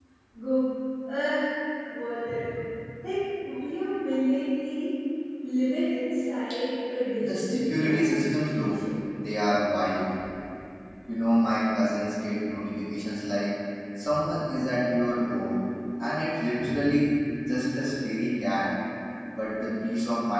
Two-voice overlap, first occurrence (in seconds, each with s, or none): 7.2 s